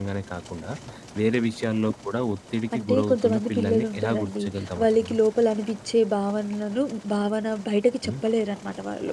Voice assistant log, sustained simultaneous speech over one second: present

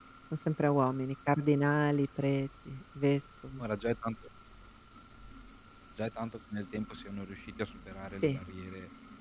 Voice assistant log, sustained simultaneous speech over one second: none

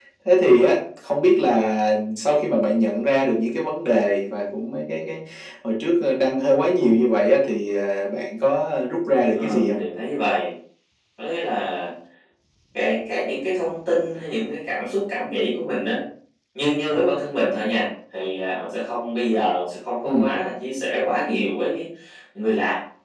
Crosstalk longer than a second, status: none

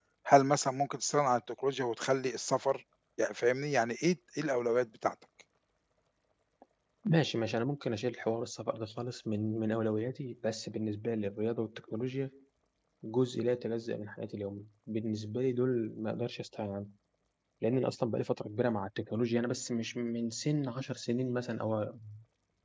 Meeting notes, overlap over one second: none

